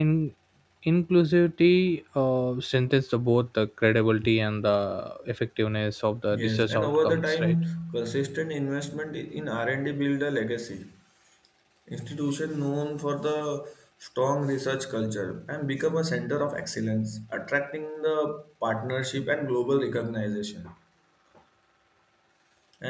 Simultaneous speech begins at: 6 s

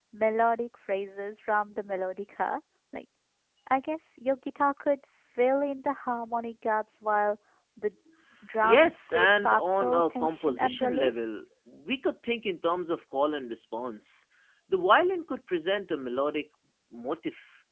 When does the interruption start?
9 s

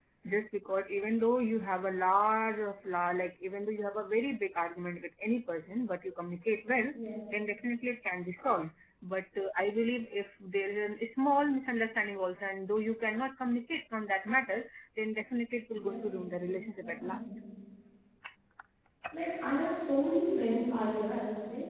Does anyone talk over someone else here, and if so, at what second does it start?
16 s

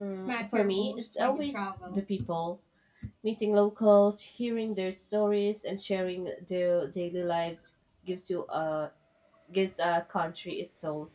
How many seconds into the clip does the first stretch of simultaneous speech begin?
1 s

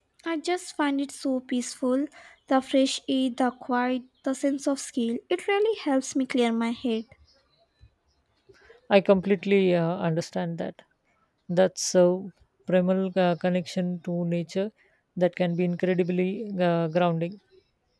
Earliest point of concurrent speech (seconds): none

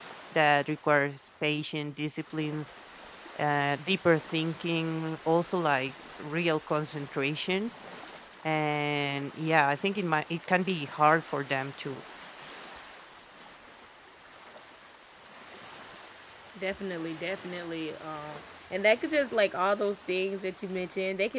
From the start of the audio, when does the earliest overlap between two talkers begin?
none

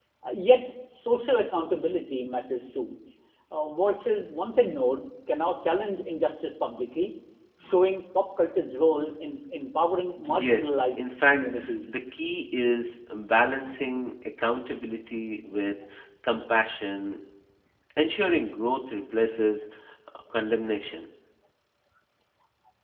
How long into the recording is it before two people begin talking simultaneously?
10 s

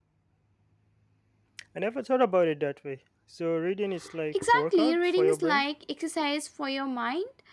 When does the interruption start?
4 s

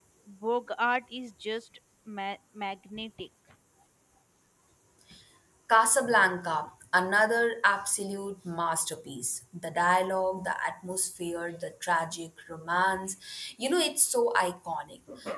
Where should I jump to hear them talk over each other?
none

